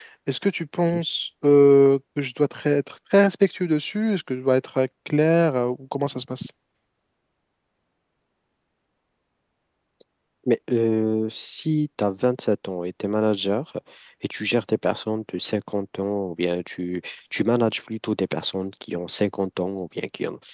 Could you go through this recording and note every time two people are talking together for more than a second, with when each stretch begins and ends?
none

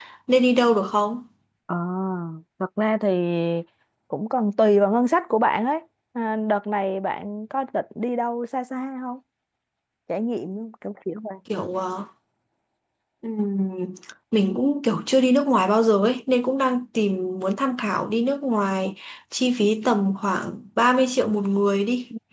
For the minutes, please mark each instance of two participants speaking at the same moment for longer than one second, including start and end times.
none

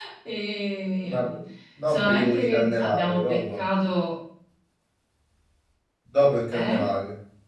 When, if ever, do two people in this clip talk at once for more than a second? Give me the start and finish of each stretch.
1.9-3.6

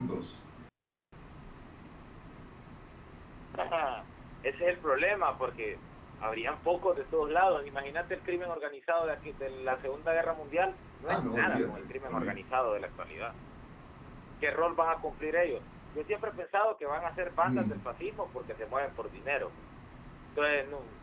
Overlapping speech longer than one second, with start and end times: 11.1-12.4

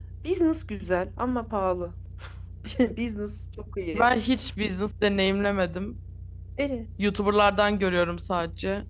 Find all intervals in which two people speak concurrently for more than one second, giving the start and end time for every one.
none

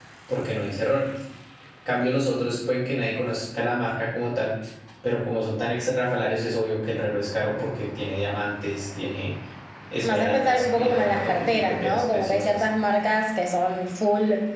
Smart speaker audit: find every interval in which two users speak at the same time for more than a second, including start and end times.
10.0-12.6

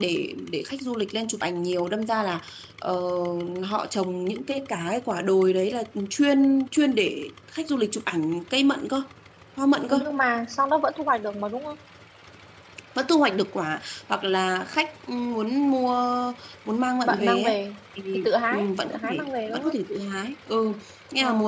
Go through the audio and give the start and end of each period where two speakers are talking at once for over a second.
18.1-19.8

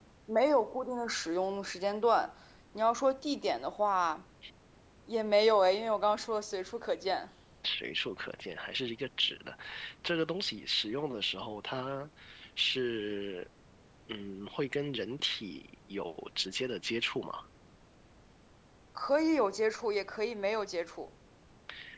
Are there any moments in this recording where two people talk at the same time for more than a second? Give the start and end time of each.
none

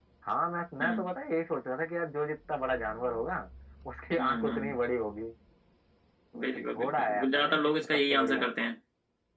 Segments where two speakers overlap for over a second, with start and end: 6.4-8.5

